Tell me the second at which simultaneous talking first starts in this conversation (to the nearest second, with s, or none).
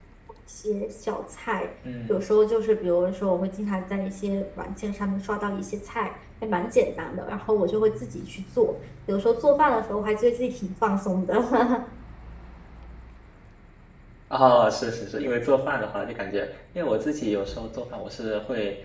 none